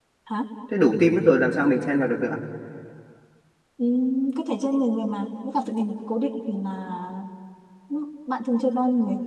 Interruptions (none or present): none